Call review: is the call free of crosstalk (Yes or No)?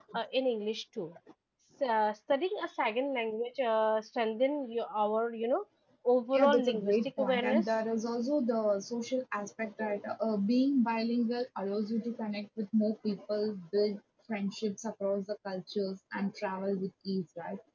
No